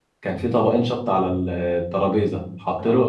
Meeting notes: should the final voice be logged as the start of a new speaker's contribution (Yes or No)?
No